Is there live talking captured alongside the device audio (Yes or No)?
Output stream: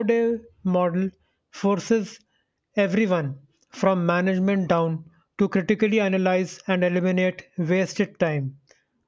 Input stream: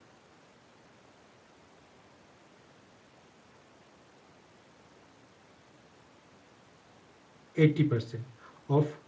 Yes